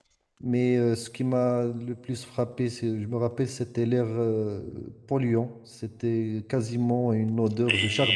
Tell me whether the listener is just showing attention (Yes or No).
No